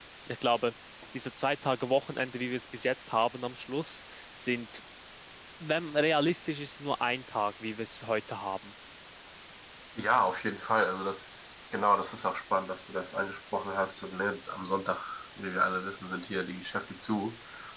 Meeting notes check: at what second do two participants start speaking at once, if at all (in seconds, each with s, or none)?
none